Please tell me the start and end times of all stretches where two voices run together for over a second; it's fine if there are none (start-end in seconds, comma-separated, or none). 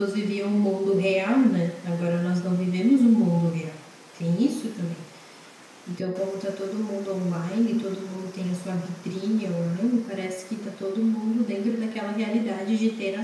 none